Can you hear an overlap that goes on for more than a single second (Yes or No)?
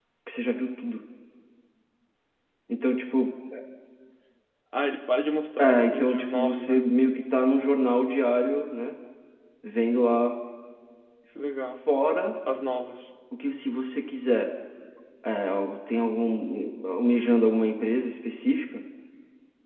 Yes